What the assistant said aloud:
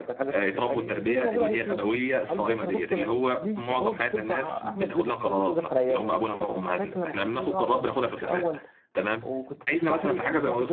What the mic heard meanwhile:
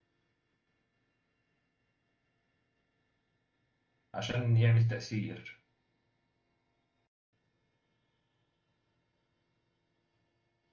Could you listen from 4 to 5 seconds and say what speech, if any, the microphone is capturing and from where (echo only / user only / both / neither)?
user only